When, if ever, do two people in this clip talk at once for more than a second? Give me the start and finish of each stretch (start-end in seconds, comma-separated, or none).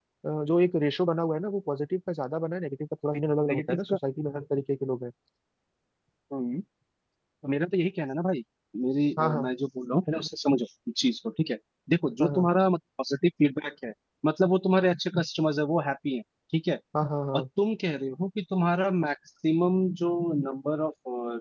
none